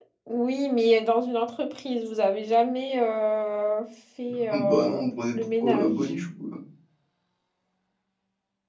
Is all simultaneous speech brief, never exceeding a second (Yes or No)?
No